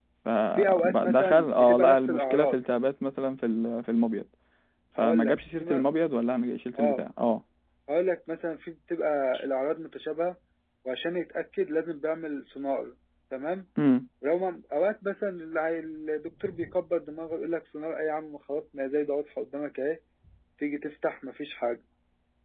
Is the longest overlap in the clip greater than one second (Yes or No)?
Yes